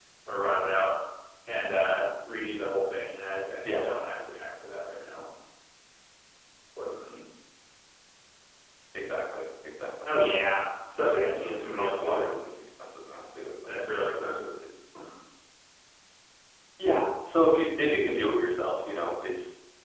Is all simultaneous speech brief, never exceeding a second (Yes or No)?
No